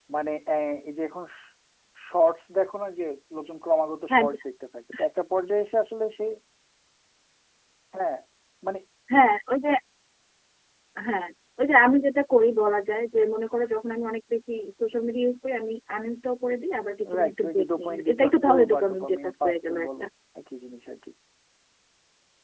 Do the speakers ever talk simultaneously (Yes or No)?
Yes